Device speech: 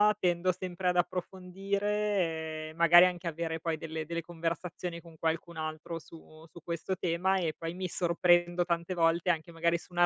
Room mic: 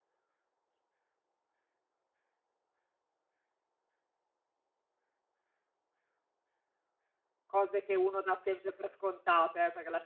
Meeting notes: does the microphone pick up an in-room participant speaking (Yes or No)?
Yes